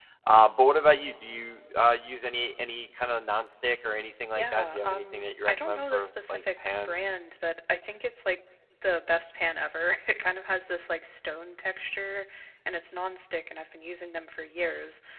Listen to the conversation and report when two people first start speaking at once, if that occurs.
4.3 s

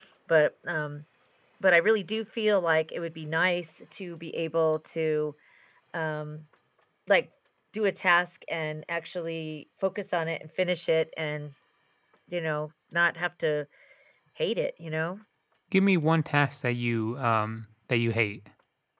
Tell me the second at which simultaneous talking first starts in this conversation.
none

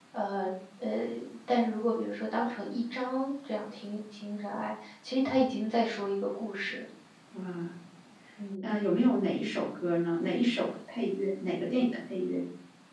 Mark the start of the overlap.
none

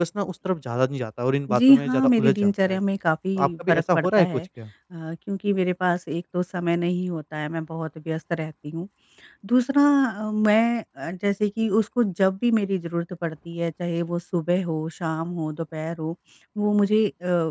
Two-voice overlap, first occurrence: 1.5 s

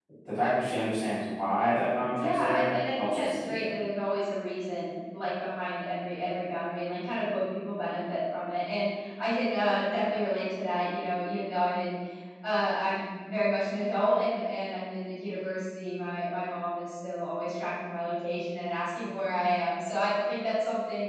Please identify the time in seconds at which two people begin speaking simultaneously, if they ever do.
2.1 s

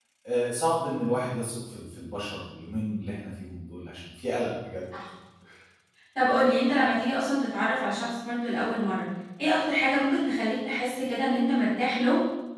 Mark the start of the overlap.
none

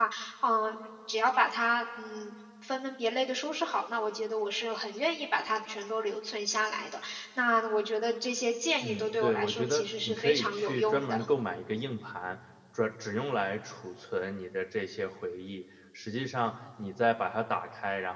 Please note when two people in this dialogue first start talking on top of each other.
8.8 s

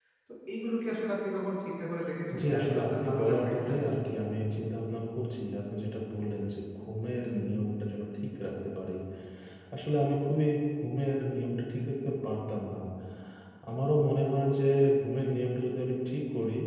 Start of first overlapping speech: 2.3 s

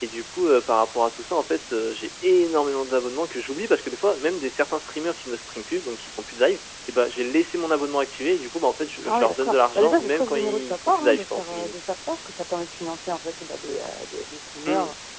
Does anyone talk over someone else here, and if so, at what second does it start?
9.0 s

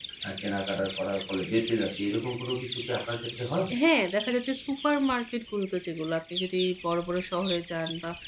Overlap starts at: none

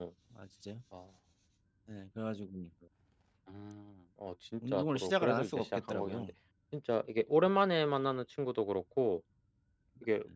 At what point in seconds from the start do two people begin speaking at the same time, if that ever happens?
4.6 s

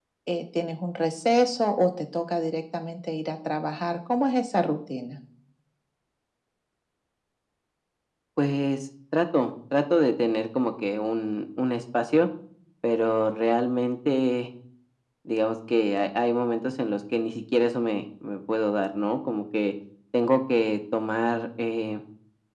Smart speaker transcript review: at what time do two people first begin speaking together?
none

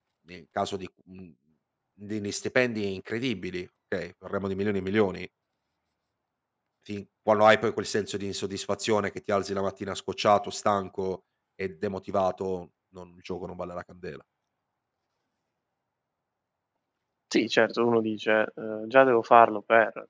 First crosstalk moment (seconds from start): none

